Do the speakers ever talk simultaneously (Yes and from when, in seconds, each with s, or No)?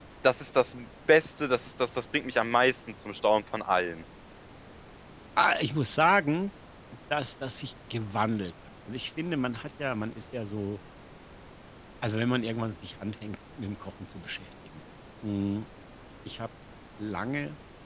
No